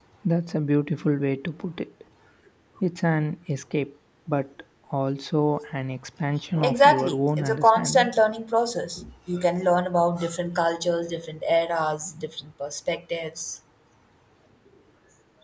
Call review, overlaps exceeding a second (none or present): present